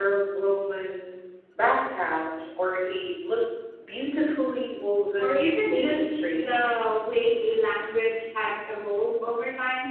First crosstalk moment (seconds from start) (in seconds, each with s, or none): 5.2 s